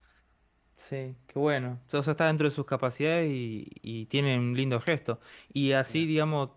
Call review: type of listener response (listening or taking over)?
listening